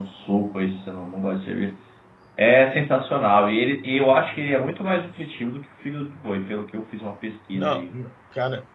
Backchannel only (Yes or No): No